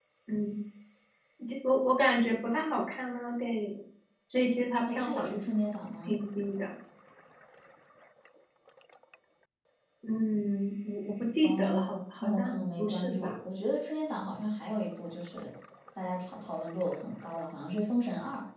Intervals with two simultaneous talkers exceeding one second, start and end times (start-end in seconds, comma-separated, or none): 11.4-13.4